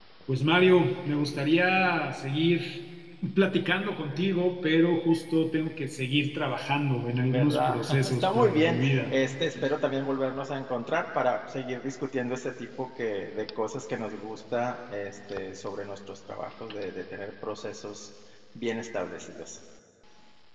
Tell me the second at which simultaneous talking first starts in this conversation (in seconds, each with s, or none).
7.2 s